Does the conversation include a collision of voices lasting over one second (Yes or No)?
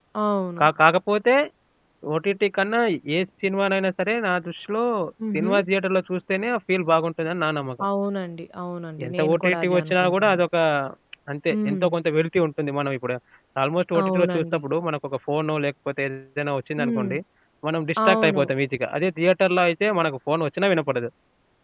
Yes